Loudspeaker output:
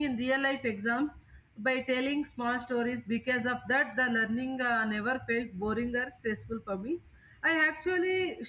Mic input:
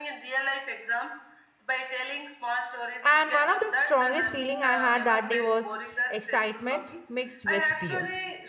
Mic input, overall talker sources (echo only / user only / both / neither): both